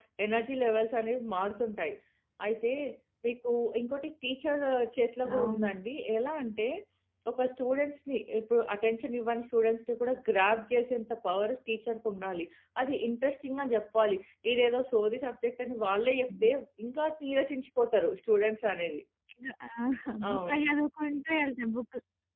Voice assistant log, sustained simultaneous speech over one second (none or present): none